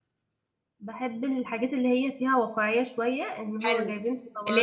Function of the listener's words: taking over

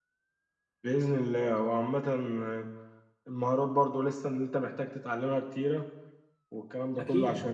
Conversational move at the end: listening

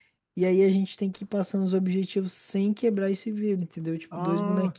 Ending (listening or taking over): taking over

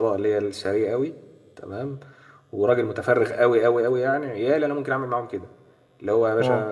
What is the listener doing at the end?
listening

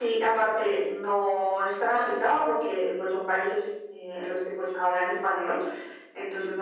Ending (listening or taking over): listening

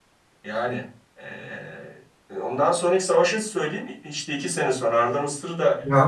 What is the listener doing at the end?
taking over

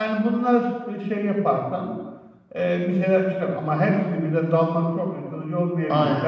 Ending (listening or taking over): listening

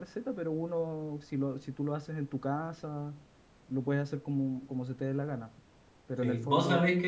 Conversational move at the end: taking over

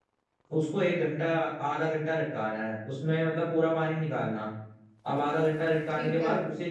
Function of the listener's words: listening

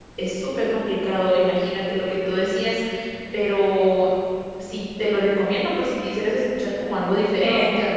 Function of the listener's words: taking over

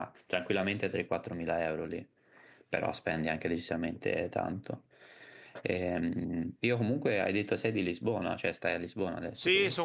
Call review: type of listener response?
taking over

